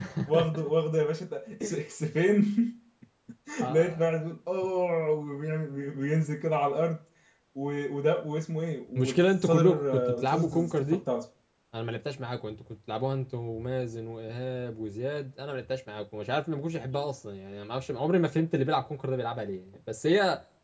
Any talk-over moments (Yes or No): Yes